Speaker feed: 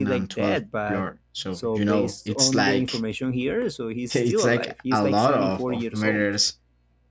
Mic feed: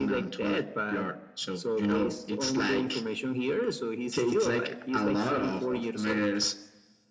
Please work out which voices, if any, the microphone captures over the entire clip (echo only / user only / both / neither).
echo only